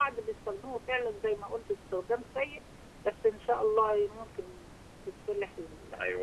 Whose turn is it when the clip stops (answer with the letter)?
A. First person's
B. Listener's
B